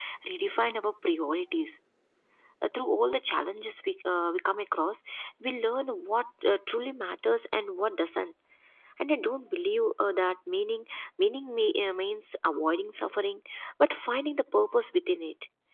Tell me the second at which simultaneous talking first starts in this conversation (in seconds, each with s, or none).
none